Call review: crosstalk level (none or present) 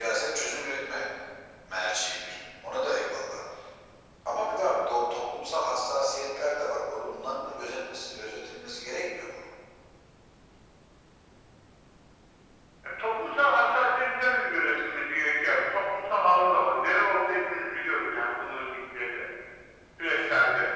none